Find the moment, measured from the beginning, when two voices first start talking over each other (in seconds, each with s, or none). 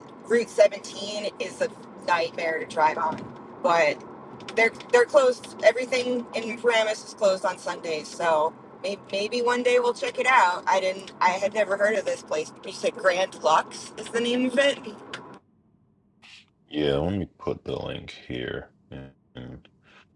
none